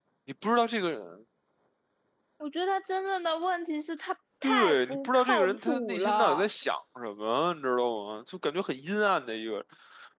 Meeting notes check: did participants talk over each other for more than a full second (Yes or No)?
Yes